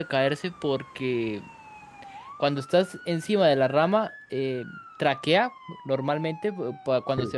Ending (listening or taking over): listening